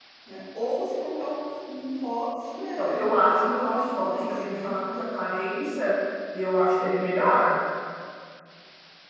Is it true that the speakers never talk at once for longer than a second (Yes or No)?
No